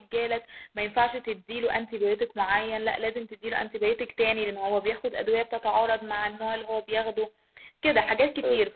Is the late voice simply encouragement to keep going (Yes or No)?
Yes